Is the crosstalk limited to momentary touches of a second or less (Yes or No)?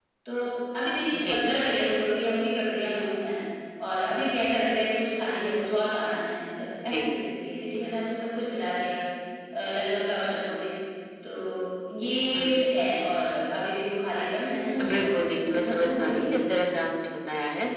No